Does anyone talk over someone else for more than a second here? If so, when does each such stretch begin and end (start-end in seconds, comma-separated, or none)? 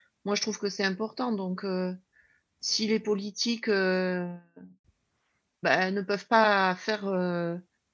none